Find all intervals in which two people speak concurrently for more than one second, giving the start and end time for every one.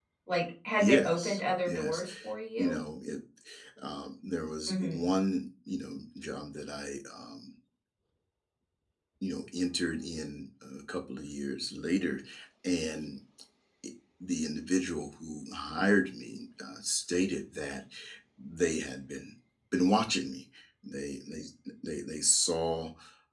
0.8-2.0

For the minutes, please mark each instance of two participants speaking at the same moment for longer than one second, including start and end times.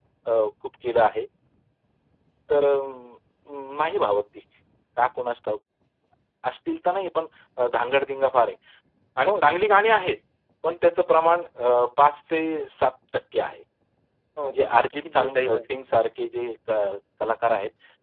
14.4-15.6

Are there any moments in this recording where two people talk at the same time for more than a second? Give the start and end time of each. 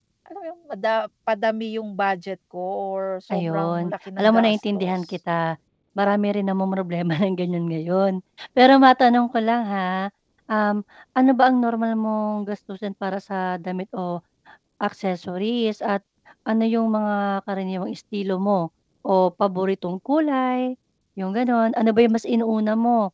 3.3-5.0

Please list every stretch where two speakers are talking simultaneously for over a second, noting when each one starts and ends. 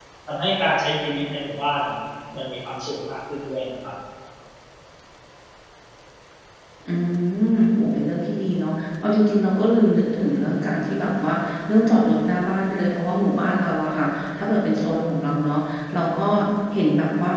none

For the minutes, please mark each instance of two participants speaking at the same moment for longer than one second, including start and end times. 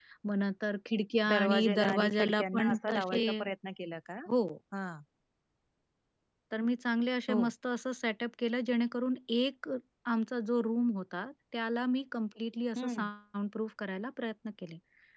1.3-3.2

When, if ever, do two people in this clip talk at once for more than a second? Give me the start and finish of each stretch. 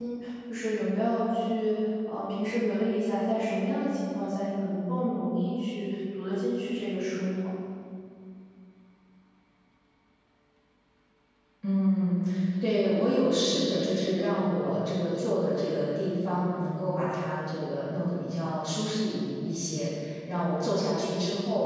none

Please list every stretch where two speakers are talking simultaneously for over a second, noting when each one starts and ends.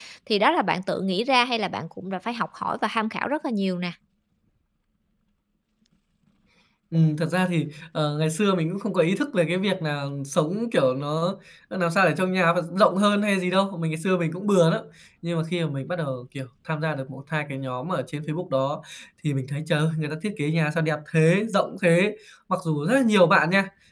none

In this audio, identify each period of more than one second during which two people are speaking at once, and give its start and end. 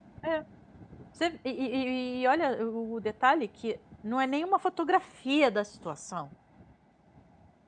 none

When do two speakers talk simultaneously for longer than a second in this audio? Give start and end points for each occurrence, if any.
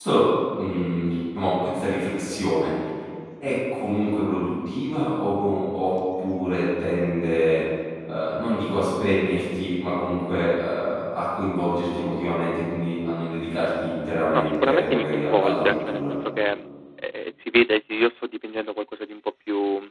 14.3-16.1

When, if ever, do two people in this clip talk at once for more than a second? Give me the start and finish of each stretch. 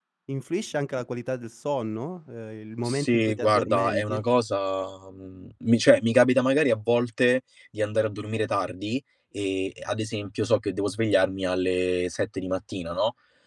2.9-4.2

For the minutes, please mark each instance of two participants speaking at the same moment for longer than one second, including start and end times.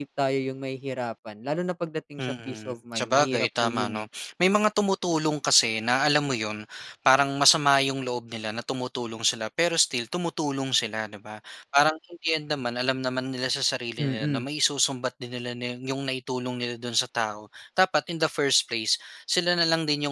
2.2-3.9

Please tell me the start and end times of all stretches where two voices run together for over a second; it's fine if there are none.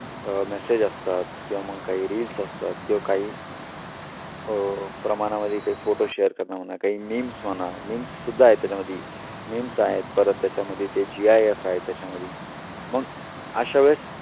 none

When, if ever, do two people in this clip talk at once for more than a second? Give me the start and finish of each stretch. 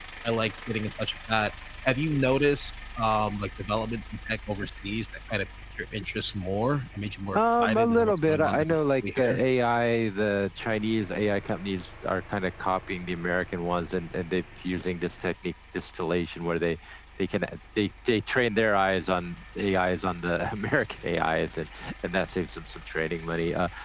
7.4-9.4

